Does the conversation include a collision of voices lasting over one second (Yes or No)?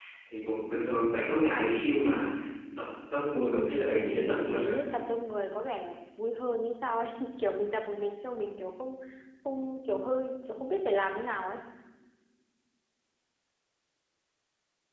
Yes